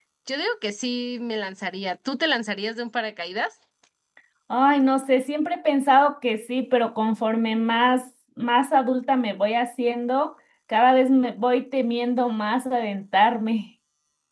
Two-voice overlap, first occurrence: none

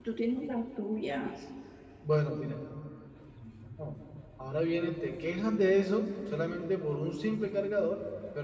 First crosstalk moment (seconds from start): none

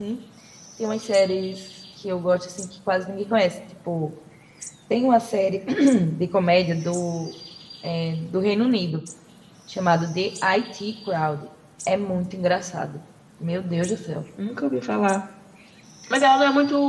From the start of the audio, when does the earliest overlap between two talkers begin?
none

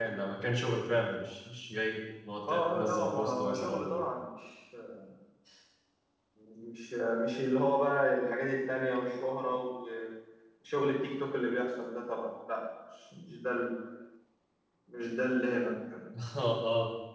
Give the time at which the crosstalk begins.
2.5 s

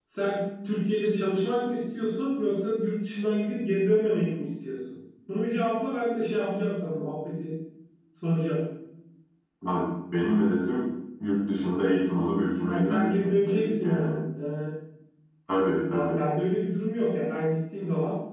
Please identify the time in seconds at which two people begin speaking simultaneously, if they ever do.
12.7 s

